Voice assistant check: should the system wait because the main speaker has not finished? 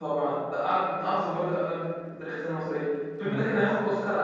Yes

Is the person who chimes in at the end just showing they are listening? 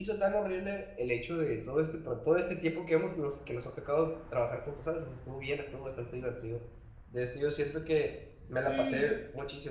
Yes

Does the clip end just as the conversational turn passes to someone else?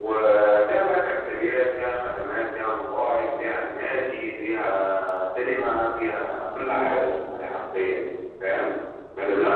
No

